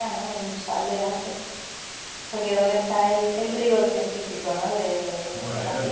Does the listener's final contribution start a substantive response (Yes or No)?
Yes